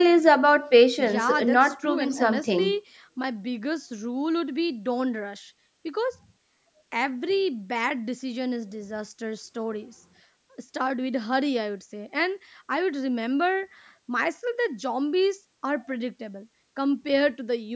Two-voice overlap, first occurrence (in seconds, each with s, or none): 1.0 s